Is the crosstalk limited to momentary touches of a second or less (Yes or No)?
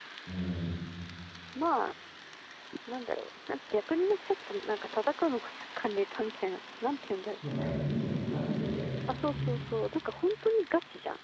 Yes